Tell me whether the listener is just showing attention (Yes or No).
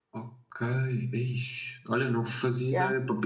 Yes